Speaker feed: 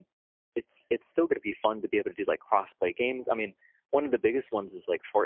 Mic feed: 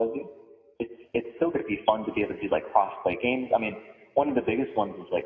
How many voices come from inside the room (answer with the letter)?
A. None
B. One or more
A